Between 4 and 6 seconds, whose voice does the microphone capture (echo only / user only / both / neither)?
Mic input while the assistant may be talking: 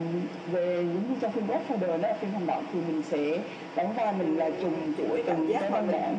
both